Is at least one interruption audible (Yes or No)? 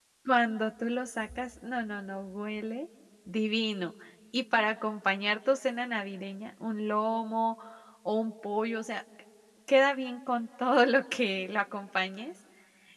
No